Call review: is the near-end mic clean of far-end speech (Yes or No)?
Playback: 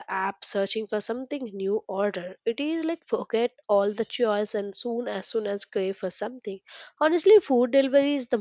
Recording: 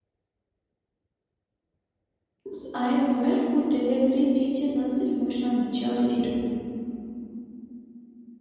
Yes